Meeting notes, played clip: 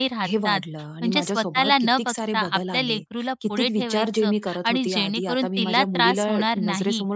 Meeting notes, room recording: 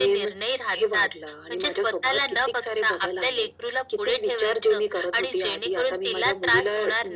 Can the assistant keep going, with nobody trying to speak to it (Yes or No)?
Yes